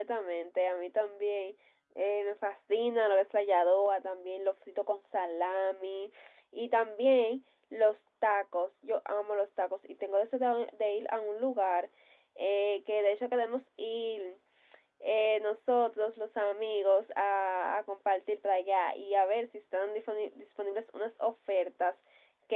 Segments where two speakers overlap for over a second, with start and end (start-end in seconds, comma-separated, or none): none